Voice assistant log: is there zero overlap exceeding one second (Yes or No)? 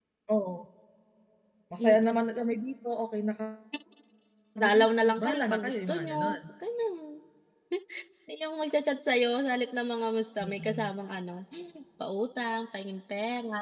No